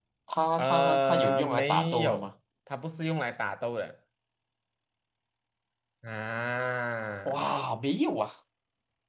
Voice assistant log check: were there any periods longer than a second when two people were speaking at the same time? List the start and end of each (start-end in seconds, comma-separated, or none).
0.6-2.3